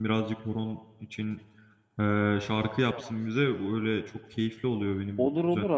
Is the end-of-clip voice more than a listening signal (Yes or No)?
Yes